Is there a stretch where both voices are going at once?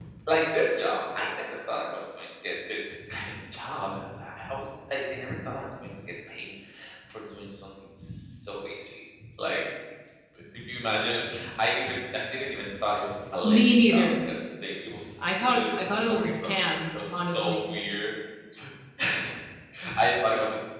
Yes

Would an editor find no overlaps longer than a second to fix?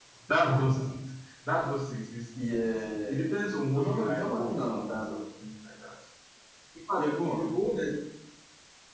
No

